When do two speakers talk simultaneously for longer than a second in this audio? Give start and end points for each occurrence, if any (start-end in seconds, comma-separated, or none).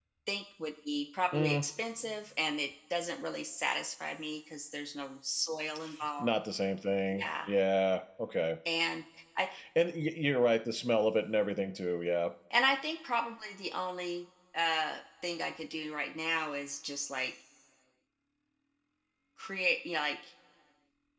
none